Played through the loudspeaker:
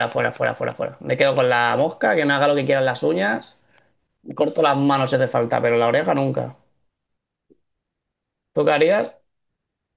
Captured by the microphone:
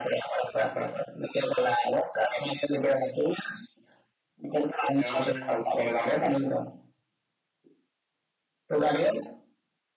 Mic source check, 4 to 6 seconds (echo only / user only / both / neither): both